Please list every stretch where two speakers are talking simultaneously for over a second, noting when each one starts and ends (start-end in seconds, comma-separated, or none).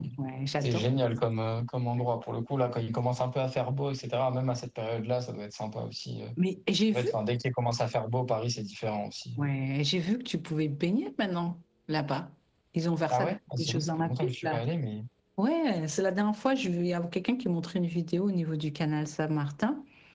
13.1-14.6